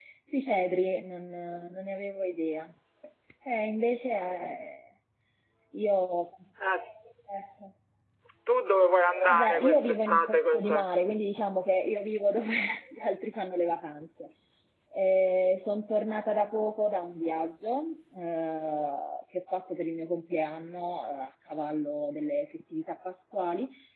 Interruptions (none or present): present